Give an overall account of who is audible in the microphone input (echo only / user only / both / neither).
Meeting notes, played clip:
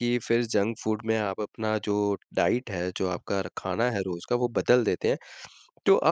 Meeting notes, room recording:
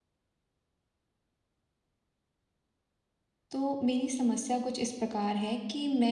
user only